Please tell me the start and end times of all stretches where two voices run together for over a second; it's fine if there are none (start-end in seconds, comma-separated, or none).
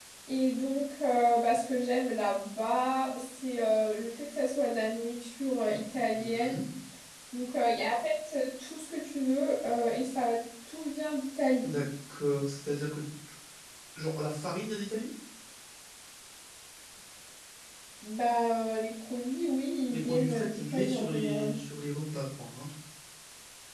19.9-21.6